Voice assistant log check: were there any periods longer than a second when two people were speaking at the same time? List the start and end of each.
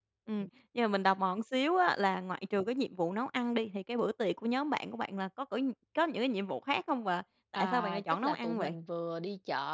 7.5-8.8

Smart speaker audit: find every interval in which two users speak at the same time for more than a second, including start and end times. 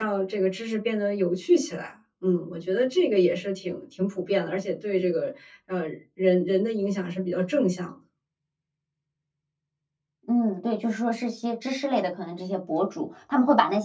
none

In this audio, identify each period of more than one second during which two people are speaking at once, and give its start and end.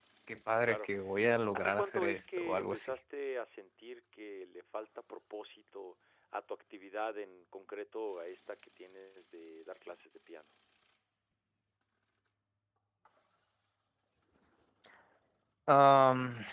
1.6-3.0

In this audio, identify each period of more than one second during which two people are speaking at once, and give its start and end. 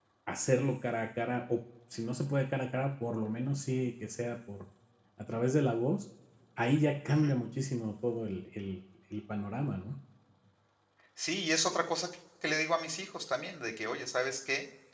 none

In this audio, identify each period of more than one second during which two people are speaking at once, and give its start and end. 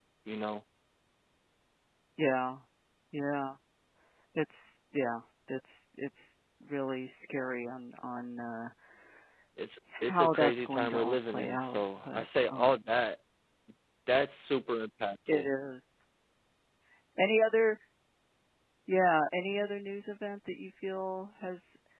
10.0-12.8

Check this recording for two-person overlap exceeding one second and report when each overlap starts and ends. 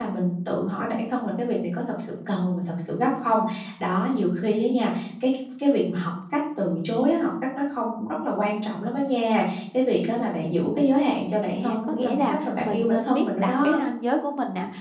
11.4-13.8

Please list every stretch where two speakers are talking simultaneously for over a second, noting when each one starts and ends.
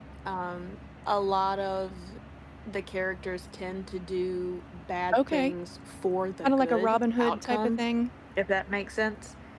6.4-7.8

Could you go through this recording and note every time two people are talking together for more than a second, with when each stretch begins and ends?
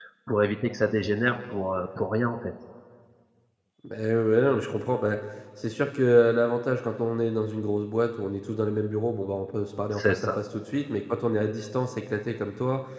none

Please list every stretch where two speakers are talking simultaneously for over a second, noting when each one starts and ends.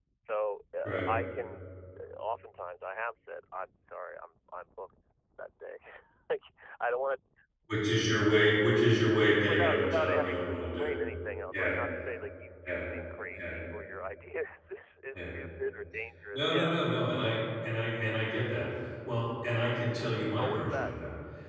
9.4-10.9

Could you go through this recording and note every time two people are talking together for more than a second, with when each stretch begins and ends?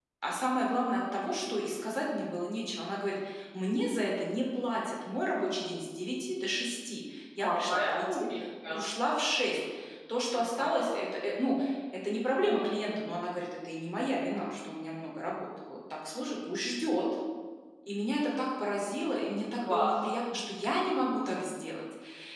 7.4-8.8

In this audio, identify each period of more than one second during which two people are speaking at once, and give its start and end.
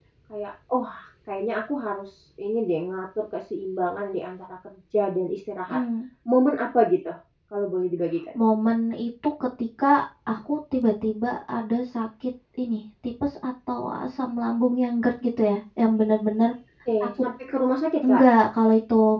none

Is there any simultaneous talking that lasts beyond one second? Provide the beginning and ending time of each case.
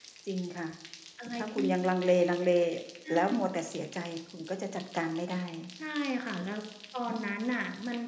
none

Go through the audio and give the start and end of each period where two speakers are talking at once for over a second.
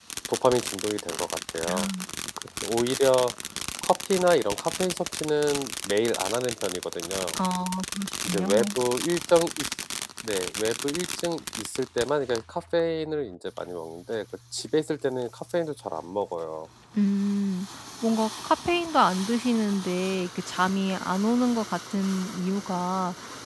none

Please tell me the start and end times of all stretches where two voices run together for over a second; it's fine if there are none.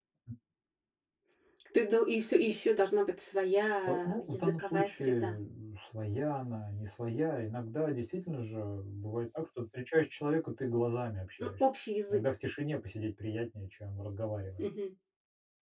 3.9-5.4

